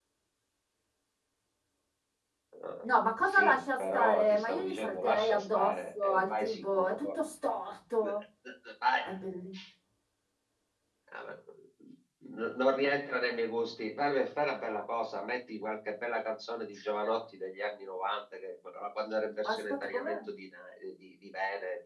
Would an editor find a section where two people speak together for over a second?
Yes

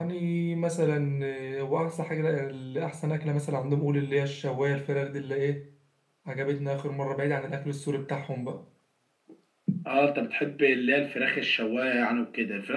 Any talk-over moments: No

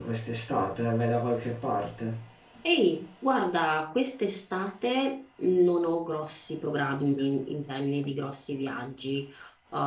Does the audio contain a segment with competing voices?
No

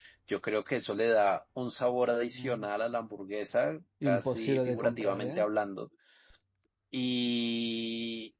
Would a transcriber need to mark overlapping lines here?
Yes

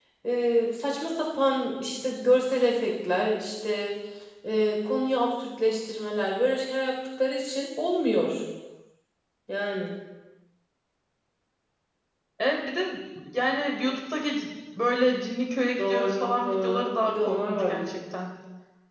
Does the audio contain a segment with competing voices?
Yes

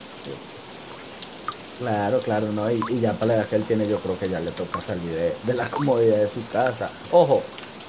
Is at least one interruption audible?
No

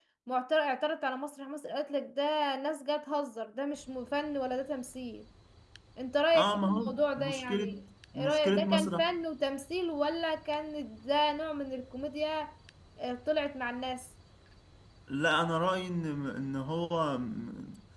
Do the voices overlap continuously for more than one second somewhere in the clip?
Yes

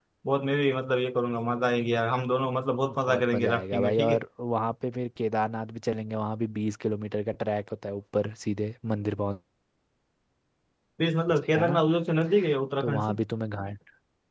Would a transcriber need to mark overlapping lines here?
Yes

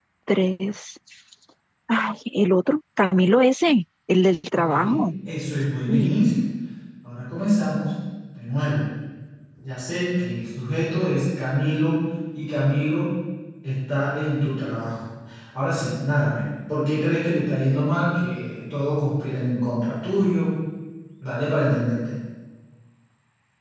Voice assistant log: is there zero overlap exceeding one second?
Yes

